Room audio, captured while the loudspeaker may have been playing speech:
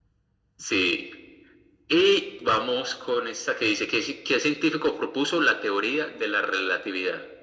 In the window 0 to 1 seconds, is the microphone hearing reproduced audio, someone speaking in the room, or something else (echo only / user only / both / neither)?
echo only